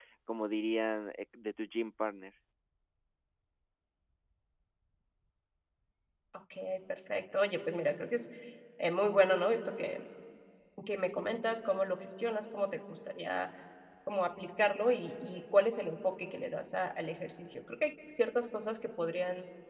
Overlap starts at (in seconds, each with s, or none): none